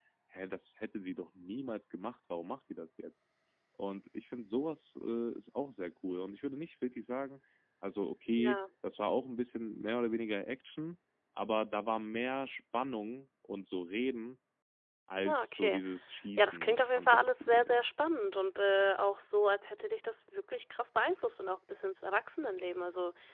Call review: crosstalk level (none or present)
present